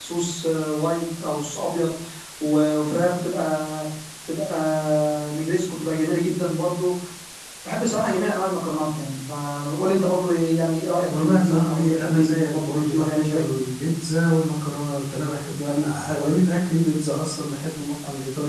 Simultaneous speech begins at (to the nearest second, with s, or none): 11 s